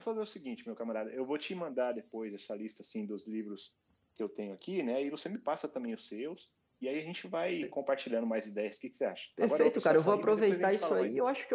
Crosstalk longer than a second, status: present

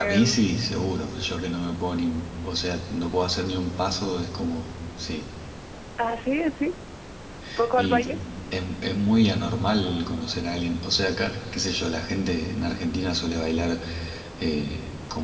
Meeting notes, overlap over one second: none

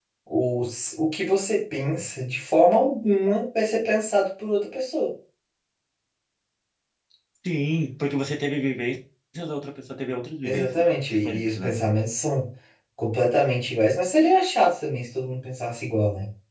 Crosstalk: present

